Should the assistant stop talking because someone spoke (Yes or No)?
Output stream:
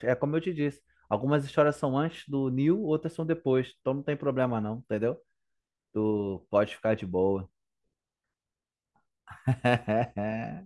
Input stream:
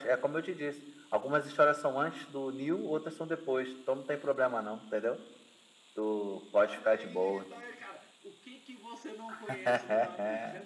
Yes